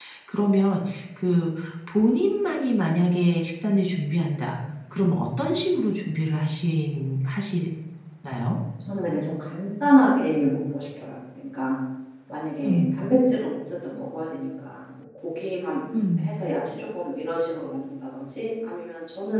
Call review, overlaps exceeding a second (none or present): none